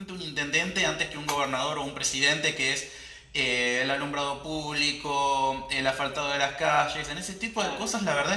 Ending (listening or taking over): listening